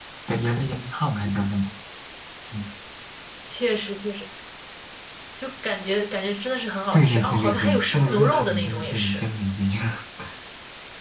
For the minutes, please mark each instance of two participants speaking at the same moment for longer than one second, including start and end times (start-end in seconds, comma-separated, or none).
6.9-9.3